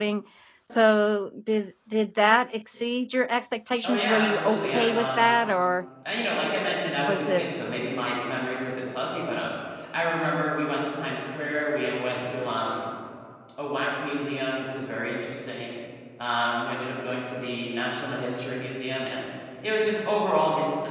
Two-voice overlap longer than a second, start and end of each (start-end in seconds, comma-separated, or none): 3.8-5.3